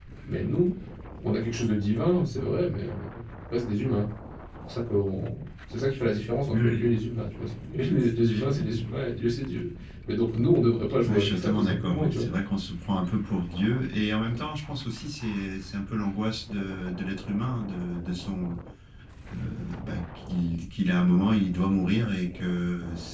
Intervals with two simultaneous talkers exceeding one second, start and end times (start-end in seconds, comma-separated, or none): 11.0-12.3